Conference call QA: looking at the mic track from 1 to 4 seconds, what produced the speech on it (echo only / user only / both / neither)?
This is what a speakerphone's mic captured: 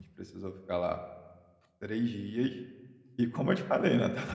user only